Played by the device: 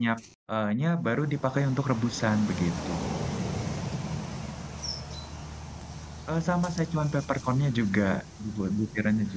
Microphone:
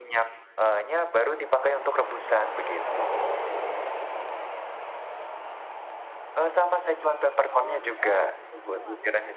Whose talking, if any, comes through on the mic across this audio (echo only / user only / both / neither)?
both